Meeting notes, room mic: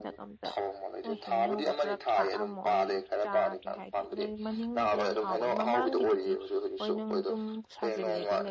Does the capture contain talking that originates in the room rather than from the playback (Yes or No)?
Yes